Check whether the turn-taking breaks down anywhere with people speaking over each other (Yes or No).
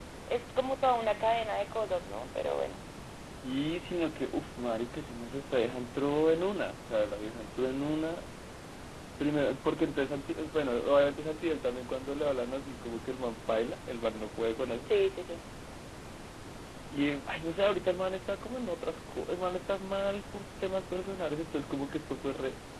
No